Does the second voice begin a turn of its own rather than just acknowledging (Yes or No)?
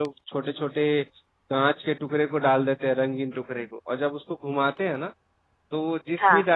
No